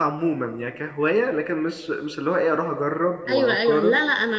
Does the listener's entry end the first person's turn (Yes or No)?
Yes